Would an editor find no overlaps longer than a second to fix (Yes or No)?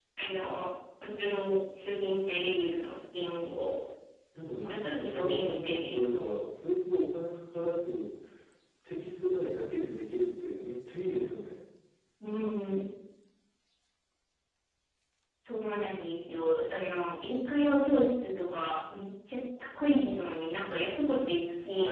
No